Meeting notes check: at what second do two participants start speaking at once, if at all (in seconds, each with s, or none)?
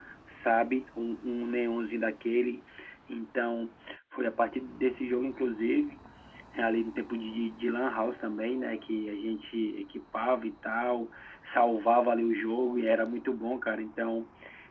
none